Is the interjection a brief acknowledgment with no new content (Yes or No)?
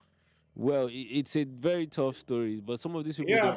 No